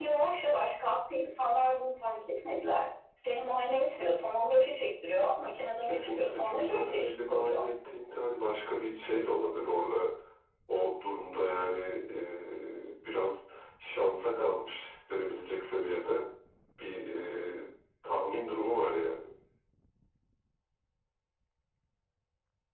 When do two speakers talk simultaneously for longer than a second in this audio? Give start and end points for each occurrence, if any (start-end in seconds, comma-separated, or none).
5.8-7.6